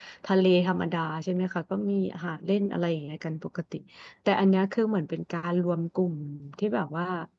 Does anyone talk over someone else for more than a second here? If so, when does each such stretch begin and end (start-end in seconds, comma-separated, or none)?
none